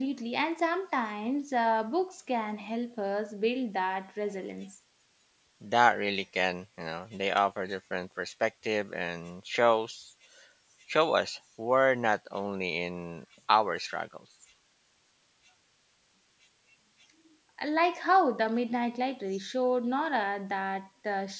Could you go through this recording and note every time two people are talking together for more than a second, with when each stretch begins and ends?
none

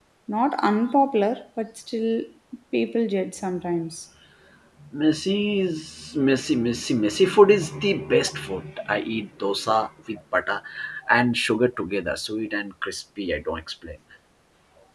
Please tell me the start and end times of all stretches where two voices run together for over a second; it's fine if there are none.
none

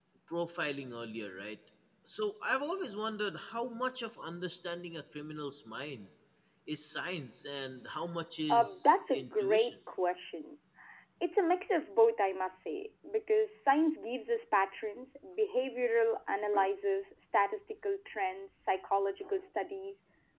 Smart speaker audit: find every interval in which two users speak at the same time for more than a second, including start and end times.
8.5-9.7

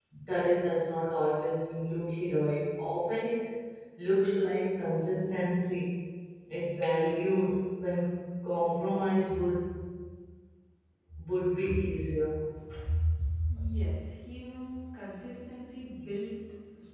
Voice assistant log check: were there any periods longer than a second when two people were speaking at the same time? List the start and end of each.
none

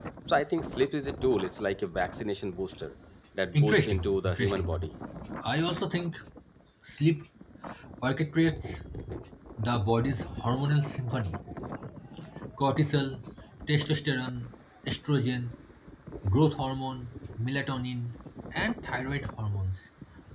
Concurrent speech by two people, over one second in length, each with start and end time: 3.5-4.9

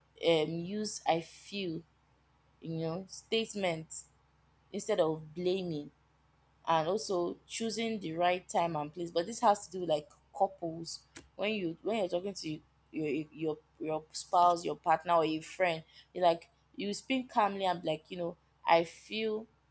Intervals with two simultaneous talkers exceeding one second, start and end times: none

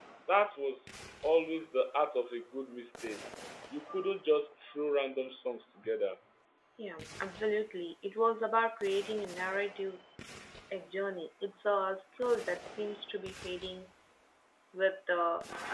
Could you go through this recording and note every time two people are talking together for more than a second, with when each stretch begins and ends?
none

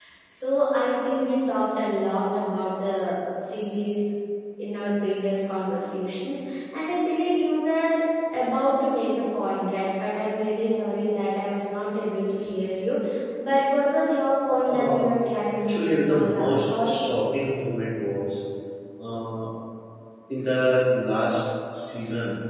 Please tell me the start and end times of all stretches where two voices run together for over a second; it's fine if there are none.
15.7-16.9

